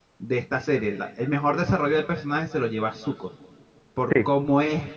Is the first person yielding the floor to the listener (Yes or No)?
No